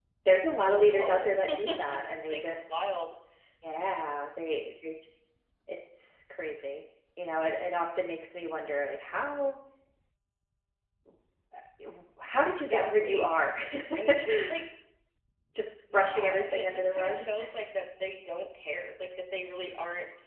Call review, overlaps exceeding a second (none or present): present